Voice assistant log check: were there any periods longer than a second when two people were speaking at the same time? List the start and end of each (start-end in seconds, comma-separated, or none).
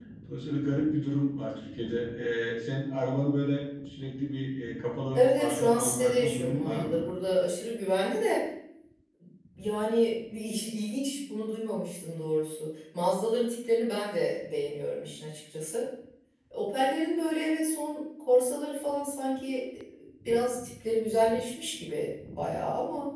5.1-7.0